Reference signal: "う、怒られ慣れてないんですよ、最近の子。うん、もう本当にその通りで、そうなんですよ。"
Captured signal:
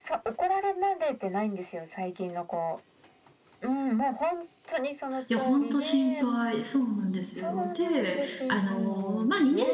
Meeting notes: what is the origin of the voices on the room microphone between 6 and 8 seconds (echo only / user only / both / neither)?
both